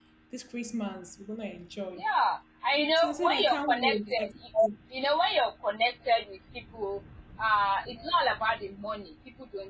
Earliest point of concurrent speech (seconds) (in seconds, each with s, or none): 3.0 s